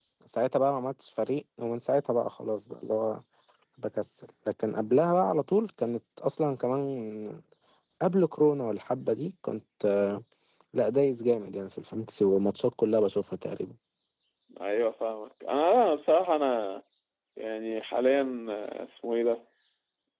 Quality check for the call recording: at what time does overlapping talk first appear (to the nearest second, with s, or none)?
none